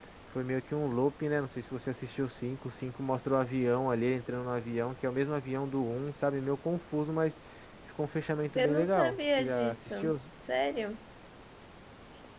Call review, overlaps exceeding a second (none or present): present